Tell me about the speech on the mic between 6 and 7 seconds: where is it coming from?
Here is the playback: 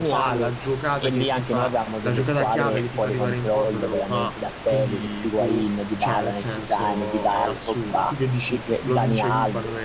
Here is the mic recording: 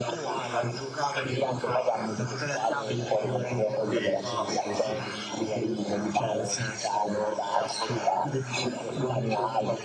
echo only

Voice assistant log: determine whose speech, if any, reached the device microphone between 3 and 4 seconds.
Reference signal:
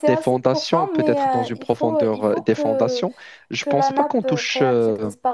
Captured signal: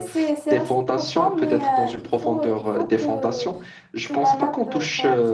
echo only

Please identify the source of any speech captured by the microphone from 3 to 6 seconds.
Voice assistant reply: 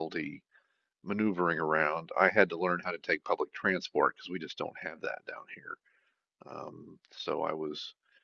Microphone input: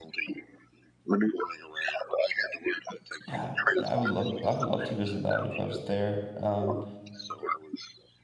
both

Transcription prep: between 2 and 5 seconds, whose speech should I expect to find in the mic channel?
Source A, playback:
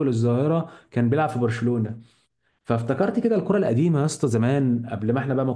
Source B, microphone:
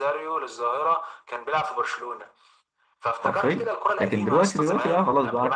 both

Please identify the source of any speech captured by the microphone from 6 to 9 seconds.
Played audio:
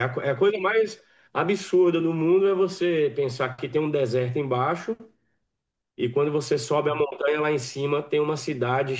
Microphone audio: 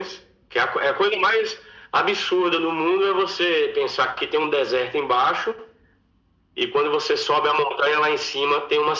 echo only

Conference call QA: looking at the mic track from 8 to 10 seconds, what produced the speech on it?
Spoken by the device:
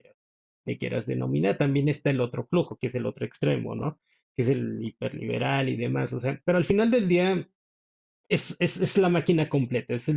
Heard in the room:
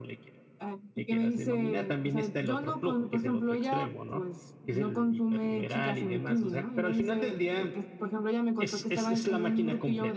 both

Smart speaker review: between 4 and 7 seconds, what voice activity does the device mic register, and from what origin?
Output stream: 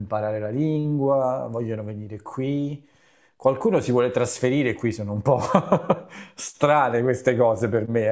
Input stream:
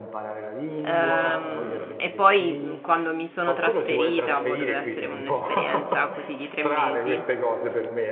both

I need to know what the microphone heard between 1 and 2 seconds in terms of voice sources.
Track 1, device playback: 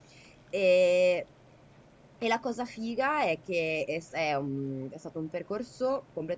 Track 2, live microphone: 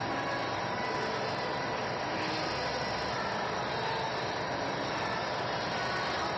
neither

